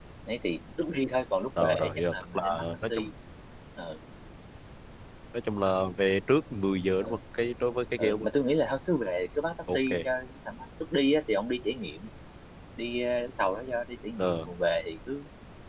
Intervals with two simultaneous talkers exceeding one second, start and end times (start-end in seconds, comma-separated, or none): 1.6-3.1